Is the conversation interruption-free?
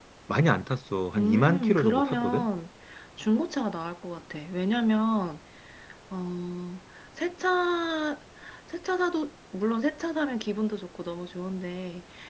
No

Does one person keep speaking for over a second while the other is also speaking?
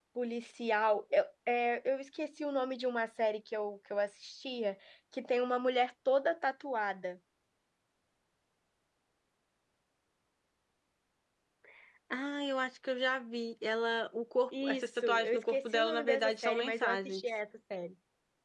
Yes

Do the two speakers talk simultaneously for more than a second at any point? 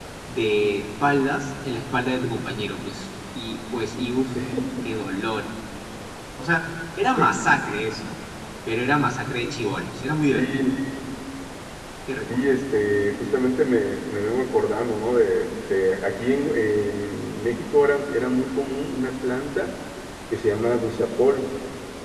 No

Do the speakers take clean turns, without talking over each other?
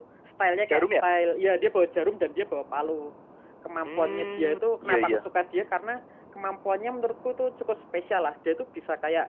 No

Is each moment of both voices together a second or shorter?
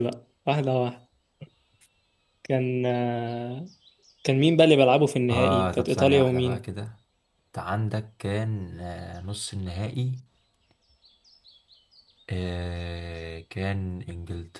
No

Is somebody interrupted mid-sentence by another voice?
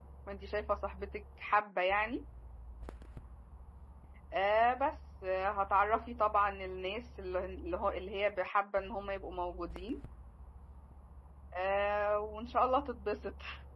No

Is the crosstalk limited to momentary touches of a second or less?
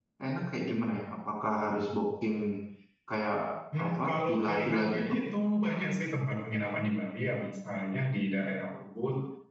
No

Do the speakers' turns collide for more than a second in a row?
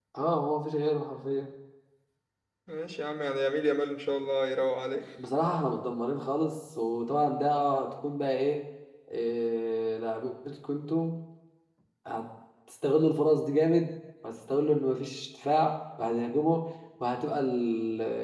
No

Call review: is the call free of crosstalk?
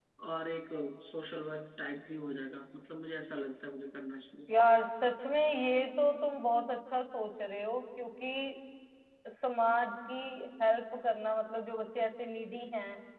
Yes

